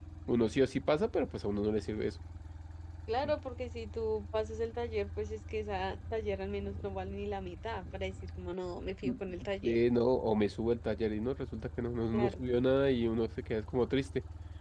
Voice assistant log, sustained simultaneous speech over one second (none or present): none